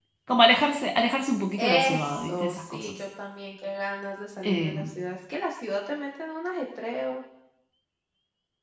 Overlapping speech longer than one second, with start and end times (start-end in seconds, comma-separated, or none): 1.6-2.9